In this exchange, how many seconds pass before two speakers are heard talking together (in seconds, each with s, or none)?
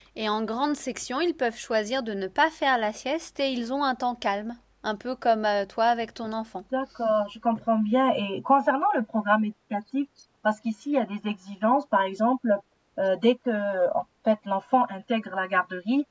none